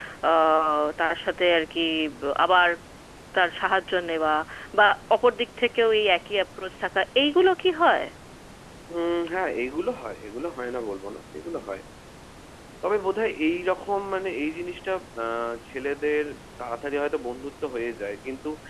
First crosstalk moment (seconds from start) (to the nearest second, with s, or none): none